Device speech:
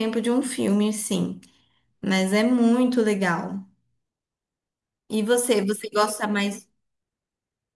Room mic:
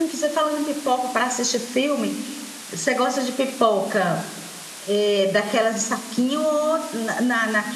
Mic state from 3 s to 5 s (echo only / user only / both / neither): user only